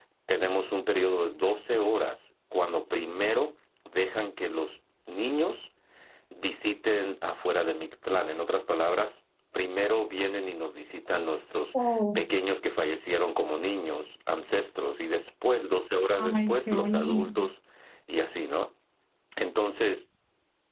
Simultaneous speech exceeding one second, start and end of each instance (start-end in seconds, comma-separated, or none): 16.1-17.4